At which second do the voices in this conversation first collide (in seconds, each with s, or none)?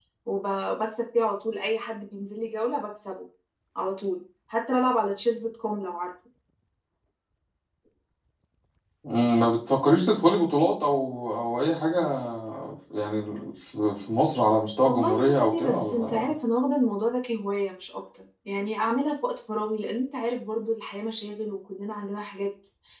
14.8 s